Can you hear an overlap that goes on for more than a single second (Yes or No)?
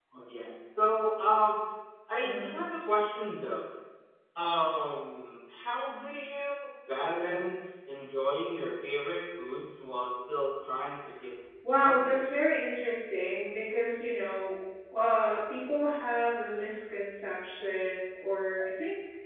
No